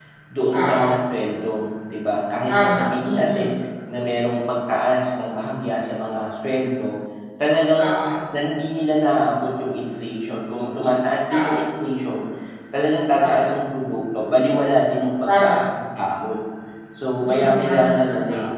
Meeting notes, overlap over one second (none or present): present